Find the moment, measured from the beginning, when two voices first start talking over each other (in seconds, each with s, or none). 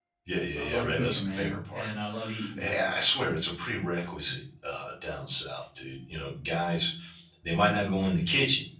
0.6 s